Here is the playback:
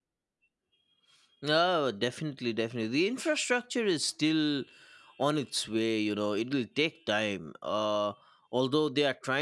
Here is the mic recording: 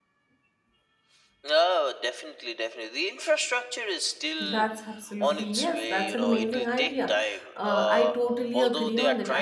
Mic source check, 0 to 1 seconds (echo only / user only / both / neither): neither